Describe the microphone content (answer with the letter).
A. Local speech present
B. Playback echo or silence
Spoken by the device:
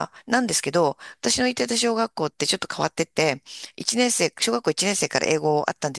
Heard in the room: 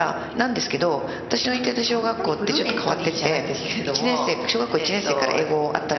A